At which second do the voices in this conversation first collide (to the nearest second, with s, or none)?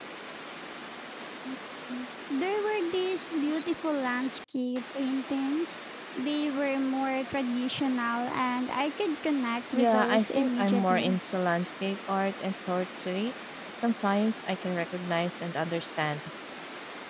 10 s